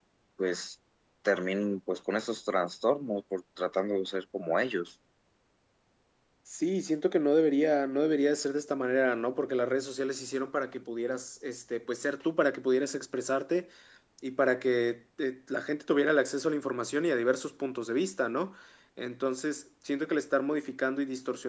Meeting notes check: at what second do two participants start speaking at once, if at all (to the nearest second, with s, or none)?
none